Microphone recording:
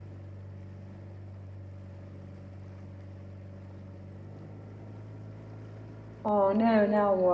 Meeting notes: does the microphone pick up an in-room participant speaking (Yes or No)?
Yes